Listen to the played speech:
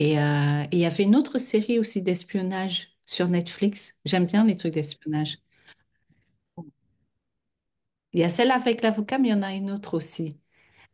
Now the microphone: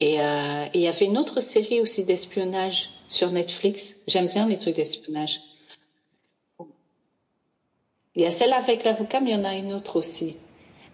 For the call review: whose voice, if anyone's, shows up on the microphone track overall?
echo only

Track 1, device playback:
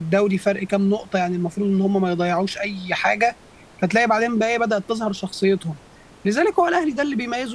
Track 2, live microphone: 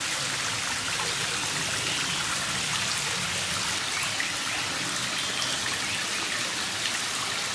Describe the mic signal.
neither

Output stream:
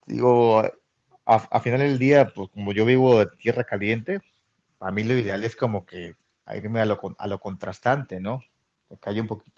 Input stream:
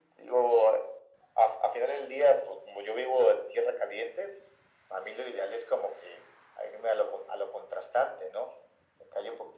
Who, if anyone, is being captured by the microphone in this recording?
echo only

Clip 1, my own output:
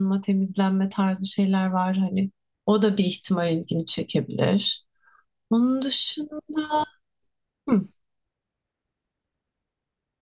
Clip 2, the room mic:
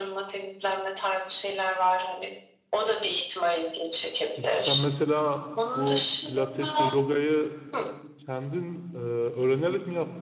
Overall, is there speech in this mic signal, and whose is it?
both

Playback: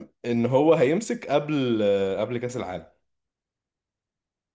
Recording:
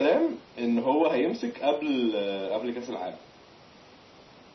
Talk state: echo only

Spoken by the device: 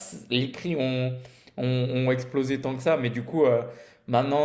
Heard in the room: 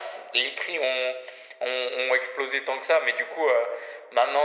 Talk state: echo only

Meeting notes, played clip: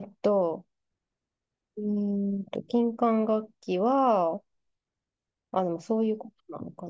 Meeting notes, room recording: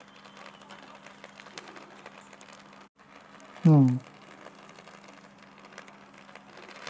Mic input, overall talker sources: user only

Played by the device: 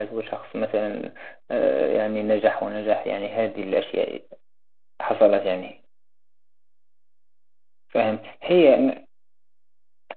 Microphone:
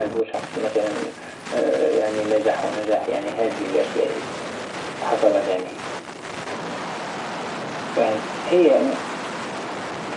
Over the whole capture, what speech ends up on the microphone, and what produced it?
echo only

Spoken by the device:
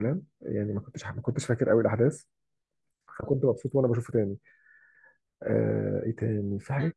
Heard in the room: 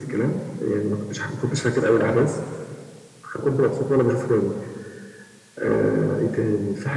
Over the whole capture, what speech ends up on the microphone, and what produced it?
echo only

